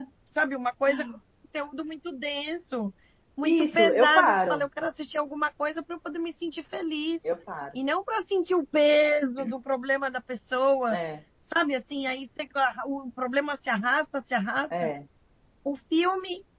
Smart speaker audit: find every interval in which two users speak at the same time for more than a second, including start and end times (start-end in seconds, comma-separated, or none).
3.4-4.6